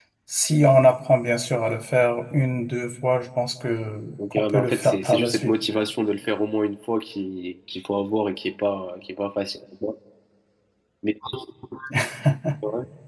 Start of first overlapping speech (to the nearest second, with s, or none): 4 s